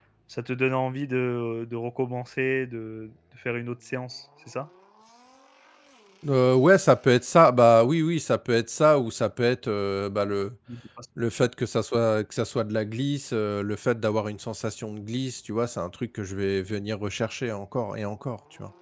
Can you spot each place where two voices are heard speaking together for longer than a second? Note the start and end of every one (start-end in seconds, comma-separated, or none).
none